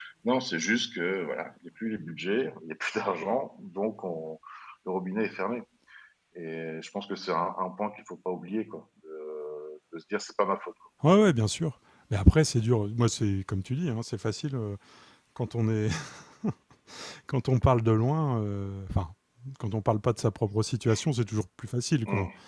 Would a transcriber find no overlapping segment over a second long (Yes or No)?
Yes